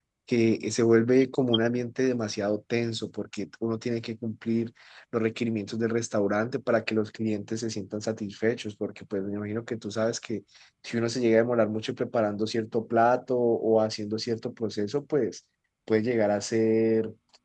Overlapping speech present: No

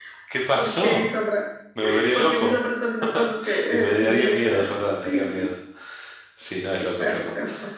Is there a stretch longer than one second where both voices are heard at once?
Yes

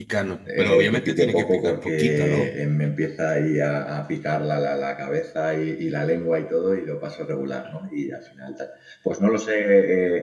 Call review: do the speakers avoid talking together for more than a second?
No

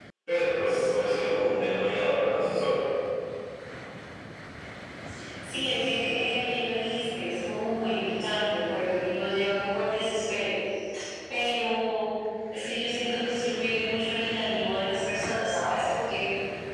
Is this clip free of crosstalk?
Yes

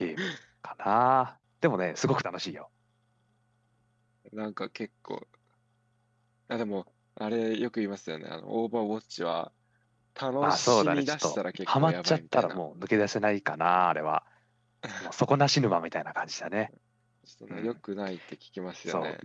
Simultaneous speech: Yes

